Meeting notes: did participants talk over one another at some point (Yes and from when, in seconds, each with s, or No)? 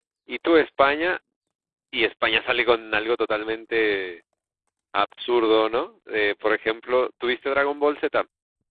No